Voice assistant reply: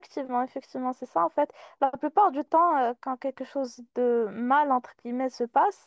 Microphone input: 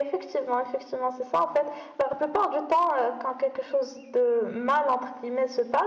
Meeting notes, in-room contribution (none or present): none